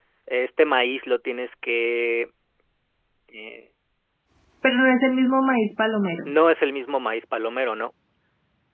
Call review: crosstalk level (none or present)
none